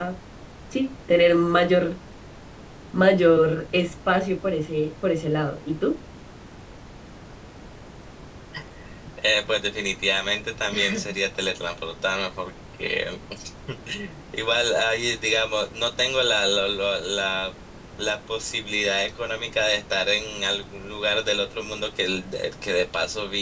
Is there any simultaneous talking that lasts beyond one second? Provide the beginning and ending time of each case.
none

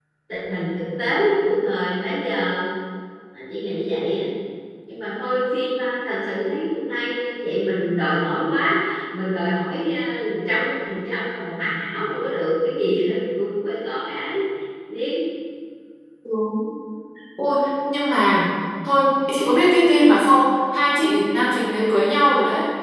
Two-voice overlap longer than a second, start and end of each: none

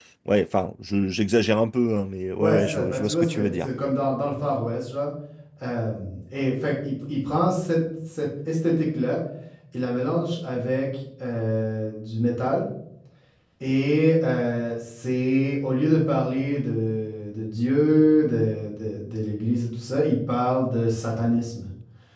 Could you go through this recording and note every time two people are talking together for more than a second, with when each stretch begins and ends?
2.4-3.7

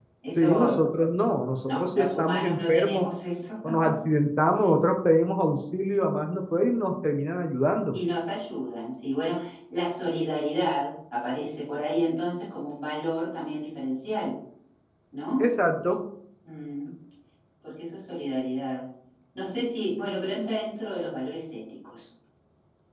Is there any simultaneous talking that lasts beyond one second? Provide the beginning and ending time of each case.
1.6-3.1

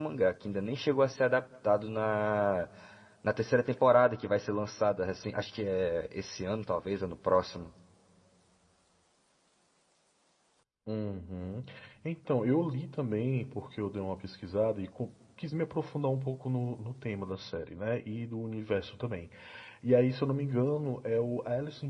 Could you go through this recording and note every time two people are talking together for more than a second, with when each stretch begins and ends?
none

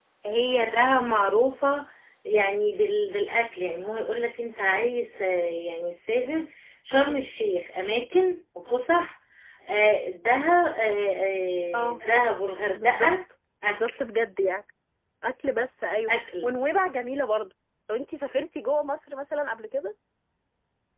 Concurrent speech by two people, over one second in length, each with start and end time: none

